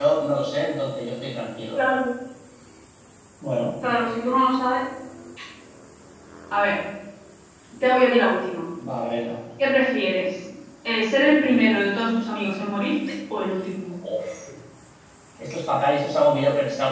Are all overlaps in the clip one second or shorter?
Yes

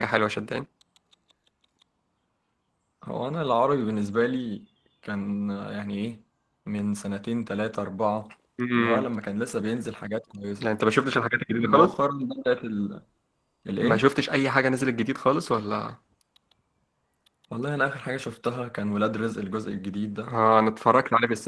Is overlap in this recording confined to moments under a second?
Yes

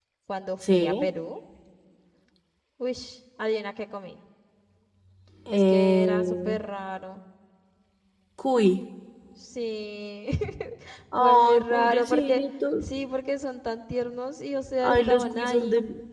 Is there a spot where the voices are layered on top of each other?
Yes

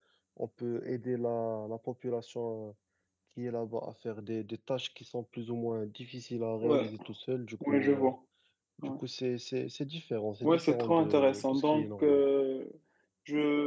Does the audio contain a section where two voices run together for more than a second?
Yes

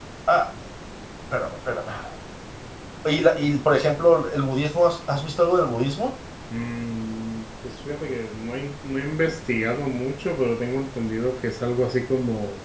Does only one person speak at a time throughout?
Yes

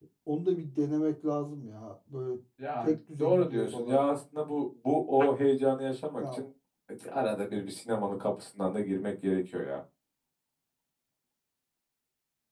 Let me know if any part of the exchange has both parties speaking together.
Yes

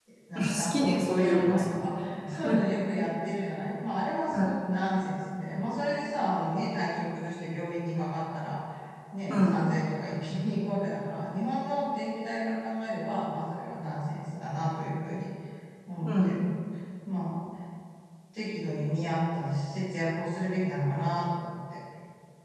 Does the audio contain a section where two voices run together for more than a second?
Yes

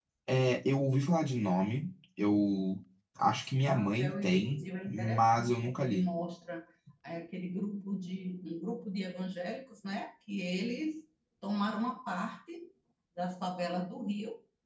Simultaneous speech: Yes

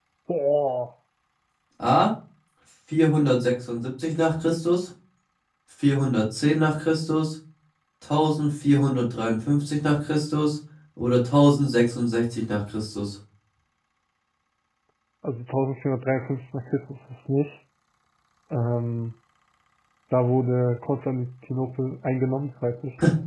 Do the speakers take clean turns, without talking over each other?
Yes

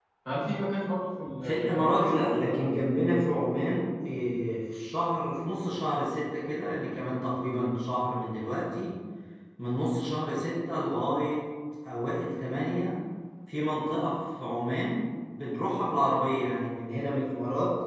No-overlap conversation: No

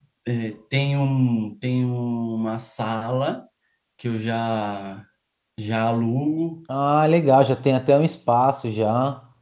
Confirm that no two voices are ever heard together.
Yes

